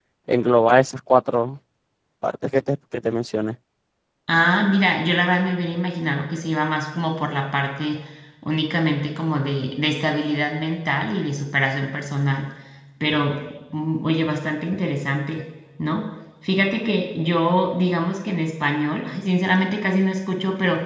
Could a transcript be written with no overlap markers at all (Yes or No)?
Yes